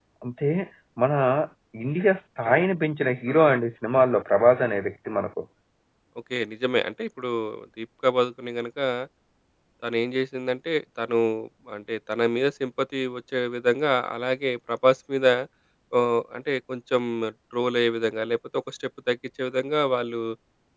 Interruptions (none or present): none